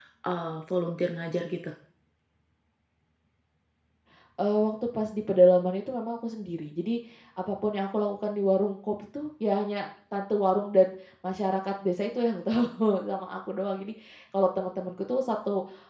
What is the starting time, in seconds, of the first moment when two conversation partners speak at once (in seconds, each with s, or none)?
none